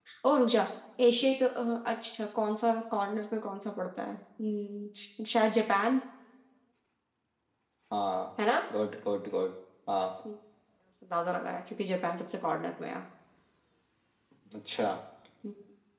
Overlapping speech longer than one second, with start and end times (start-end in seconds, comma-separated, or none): none